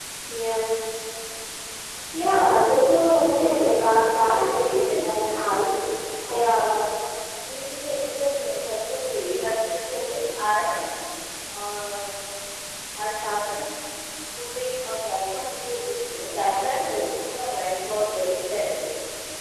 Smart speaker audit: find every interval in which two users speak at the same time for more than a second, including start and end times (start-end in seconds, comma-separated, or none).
3.4-5.7